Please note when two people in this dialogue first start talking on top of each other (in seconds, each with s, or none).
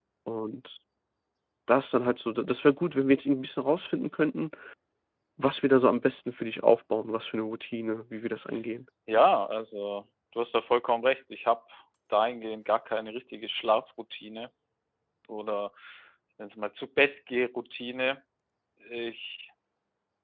none